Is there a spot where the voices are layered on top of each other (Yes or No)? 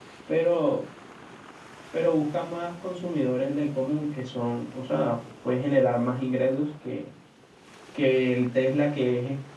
No